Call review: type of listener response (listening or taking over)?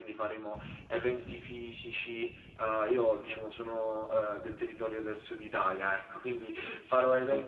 listening